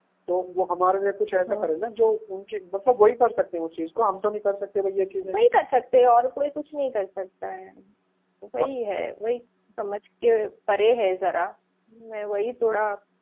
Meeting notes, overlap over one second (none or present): none